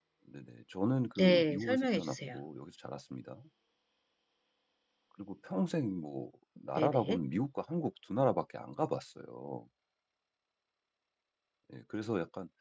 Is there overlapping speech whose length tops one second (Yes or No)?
Yes